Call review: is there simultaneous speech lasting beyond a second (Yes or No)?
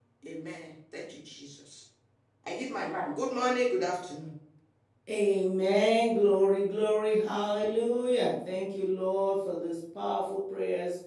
No